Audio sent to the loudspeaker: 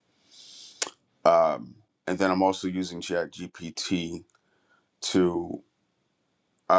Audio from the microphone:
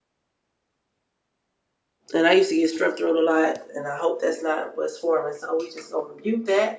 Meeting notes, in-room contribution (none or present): present